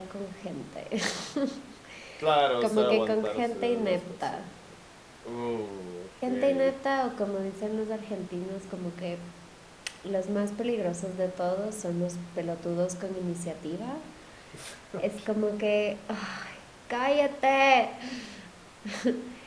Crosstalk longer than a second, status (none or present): present